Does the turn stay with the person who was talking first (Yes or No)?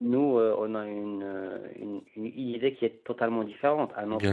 Yes